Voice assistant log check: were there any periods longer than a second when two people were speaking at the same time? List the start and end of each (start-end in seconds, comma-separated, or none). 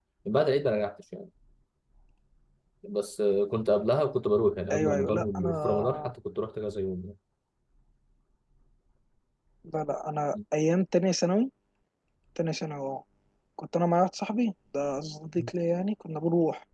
4.7-6.1